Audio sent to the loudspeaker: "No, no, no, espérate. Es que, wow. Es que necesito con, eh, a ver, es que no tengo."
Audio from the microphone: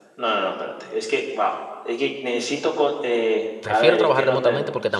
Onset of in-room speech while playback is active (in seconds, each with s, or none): 3.6 s